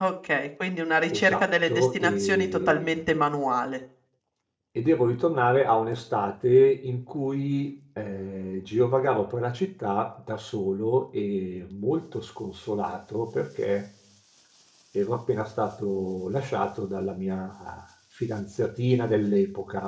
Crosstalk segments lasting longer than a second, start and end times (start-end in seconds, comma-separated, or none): 1.1-2.9